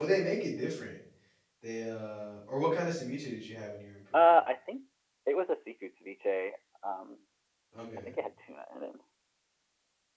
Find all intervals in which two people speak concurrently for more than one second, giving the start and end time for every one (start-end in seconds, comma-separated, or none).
none